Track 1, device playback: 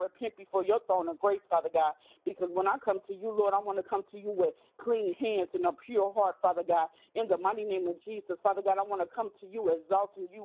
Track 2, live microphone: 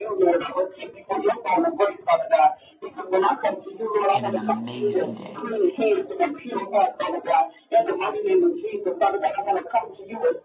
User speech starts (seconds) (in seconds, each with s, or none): 4.1 s